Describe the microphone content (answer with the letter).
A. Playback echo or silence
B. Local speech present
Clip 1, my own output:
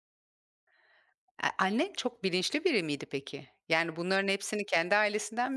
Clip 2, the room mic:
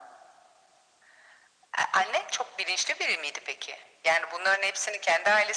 A